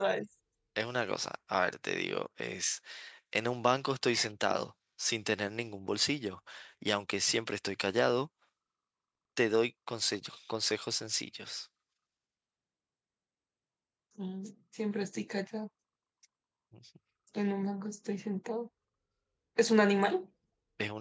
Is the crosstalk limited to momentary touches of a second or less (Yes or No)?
Yes